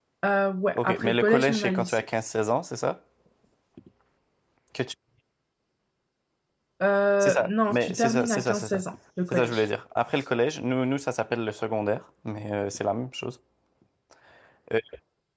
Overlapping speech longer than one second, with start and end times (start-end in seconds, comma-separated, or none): 0.8-2.0, 7.2-8.8